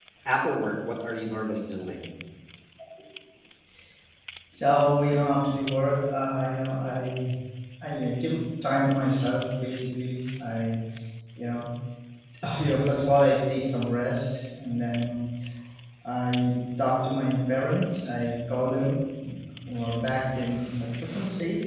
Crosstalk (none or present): none